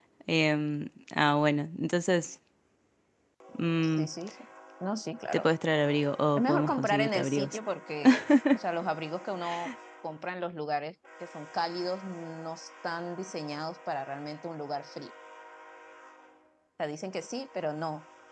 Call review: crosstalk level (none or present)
present